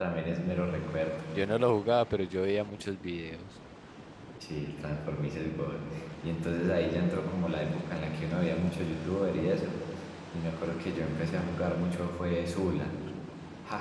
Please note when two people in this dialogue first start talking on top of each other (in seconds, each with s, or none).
none